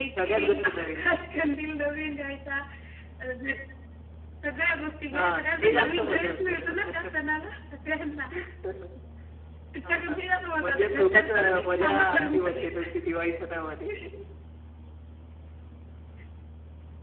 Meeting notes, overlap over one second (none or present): present